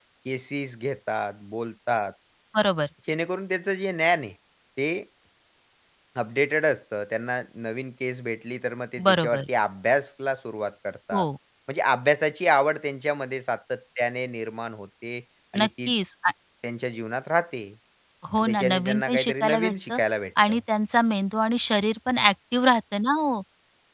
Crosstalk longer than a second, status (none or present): present